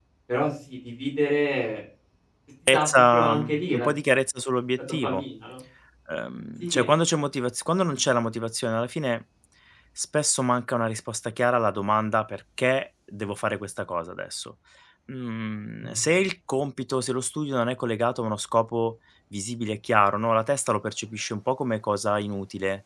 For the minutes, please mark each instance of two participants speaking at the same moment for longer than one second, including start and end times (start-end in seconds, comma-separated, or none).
2.7-3.9